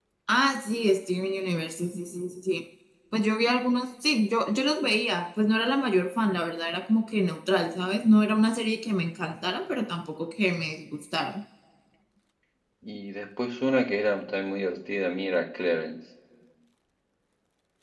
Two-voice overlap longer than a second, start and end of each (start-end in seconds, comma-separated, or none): none